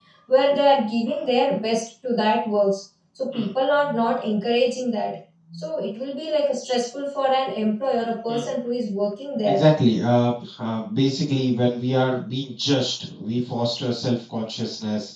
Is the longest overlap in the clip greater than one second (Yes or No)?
No